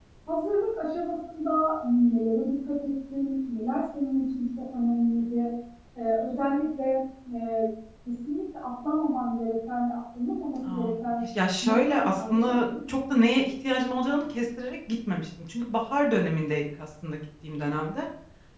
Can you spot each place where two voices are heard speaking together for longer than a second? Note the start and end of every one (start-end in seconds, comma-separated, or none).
11.6-12.9